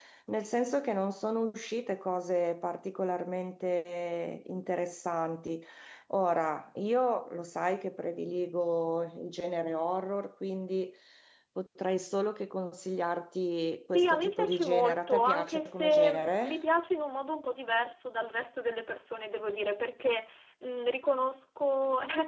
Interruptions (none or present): present